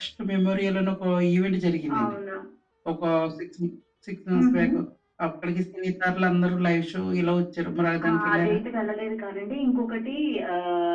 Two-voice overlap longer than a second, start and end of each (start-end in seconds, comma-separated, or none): none